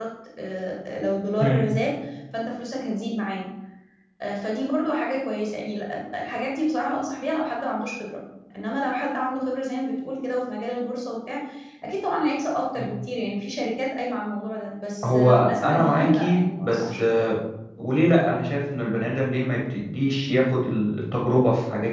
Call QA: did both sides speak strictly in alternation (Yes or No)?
No